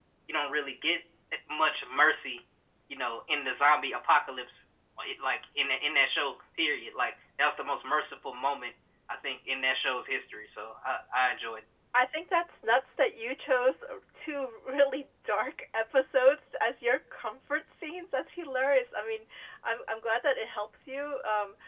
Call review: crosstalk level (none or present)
none